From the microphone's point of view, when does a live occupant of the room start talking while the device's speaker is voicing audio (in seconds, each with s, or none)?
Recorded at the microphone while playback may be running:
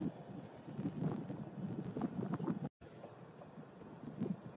none